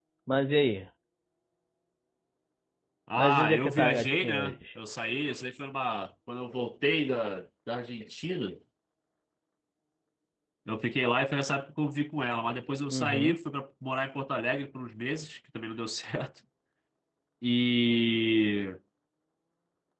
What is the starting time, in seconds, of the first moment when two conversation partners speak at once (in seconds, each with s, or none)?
3.2 s